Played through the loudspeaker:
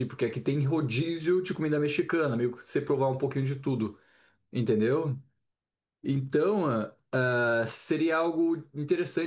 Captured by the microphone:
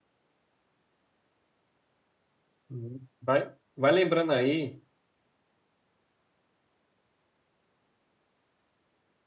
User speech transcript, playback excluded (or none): Uhum. Vai, vai lembrando aí.